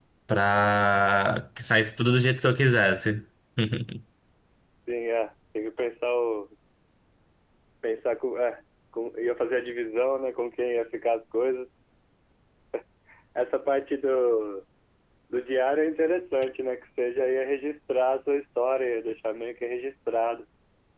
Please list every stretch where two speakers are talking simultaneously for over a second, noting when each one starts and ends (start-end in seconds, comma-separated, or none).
none